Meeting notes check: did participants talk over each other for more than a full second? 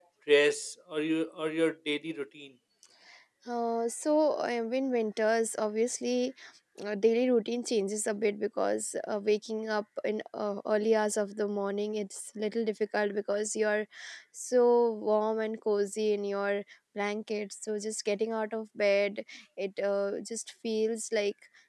No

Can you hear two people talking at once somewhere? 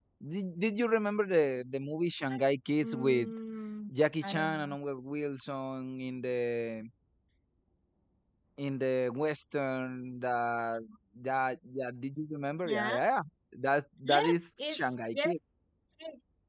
Yes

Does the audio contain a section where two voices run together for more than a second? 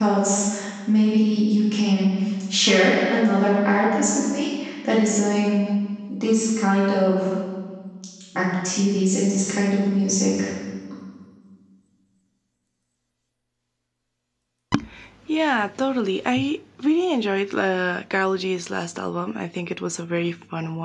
No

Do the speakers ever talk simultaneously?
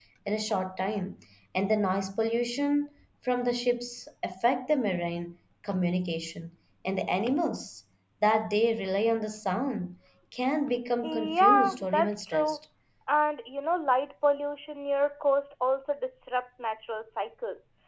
Yes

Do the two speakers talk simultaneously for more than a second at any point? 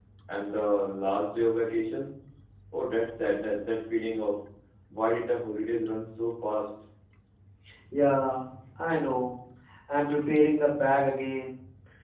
No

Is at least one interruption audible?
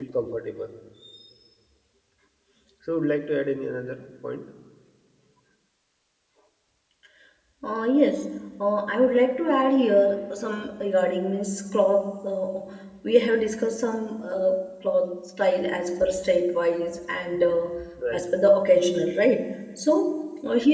No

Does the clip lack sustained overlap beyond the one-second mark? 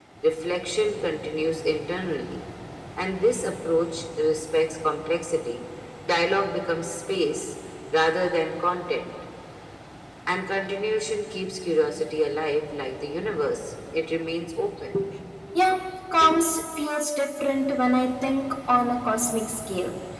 Yes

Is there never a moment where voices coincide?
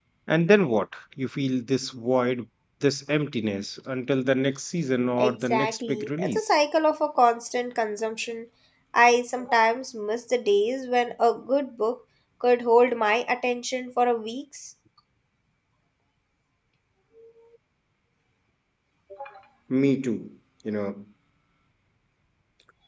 No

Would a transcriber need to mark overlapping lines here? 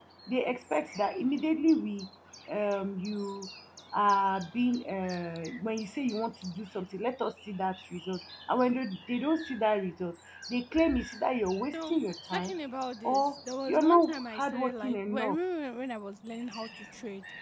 Yes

